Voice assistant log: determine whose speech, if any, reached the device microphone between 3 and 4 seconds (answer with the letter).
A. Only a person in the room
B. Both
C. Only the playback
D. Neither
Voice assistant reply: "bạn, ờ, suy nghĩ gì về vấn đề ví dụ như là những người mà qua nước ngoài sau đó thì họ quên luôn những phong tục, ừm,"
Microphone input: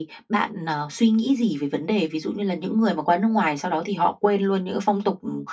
C